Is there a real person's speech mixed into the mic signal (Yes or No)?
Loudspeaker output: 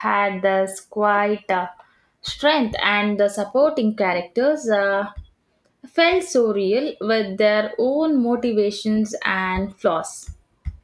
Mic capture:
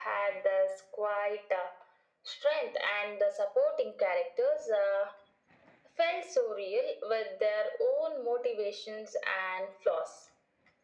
No